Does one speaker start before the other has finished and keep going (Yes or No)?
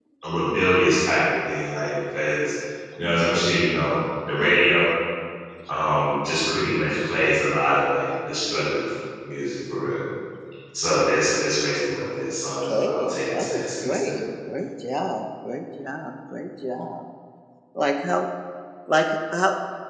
Yes